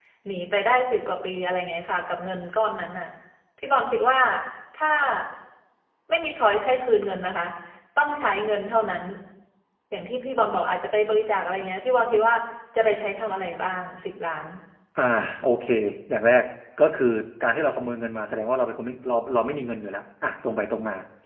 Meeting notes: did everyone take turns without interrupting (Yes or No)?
Yes